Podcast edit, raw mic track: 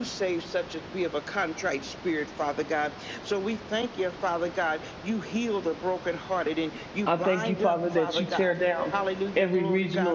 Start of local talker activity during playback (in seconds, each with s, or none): 7.1 s